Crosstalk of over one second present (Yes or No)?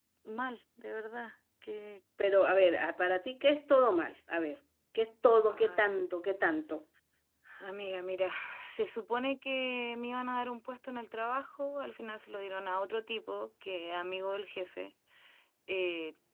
No